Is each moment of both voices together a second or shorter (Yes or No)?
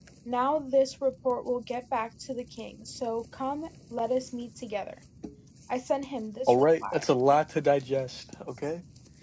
Yes